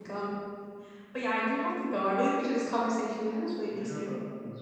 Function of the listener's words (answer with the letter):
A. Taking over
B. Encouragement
A